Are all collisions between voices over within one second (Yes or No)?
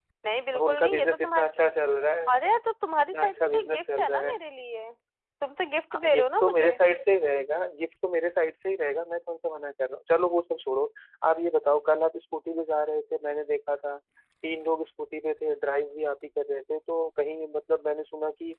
No